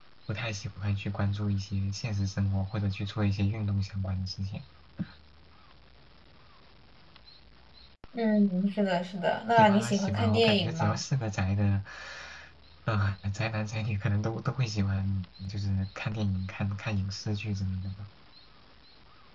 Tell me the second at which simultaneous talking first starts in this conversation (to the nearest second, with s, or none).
10 s